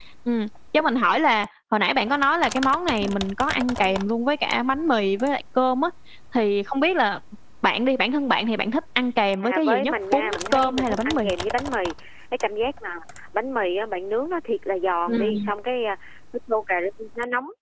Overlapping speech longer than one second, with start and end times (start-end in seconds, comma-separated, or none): 9.3-11.3